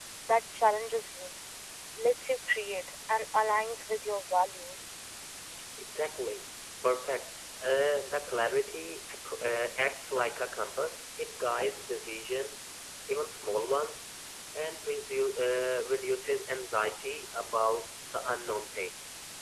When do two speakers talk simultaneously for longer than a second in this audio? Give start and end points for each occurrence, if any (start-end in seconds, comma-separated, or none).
none